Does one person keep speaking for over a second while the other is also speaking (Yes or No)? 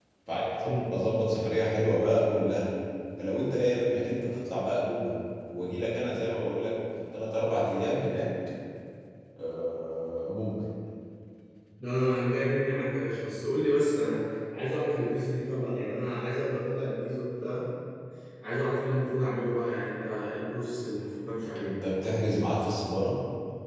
No